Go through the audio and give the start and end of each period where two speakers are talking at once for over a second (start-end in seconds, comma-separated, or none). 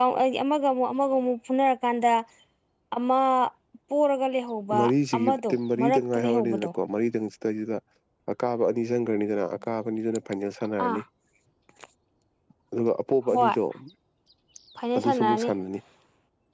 5.2-6.7